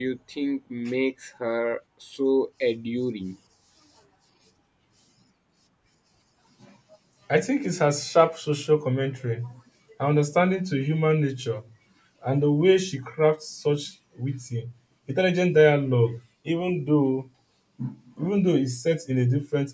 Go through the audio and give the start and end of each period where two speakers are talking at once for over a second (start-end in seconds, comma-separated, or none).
none